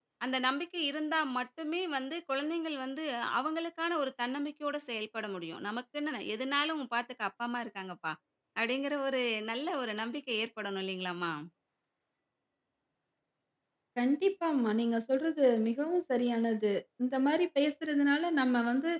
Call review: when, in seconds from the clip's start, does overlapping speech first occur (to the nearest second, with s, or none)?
none